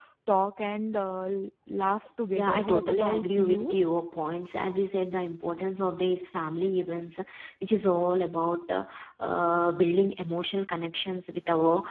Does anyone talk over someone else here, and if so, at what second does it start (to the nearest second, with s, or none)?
2 s